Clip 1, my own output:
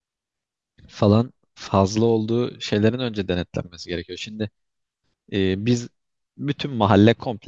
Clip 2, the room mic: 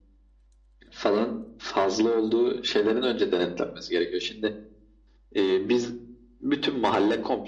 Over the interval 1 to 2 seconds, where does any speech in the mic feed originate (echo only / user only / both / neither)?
echo only